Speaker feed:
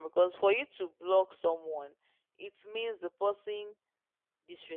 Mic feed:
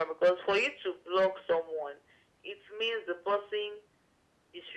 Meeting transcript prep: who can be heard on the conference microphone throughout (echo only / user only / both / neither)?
echo only